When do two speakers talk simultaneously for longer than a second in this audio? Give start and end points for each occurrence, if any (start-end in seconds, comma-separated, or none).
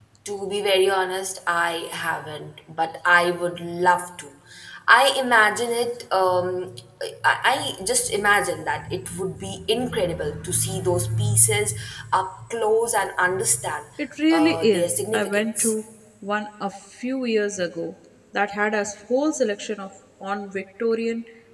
14.3-15.7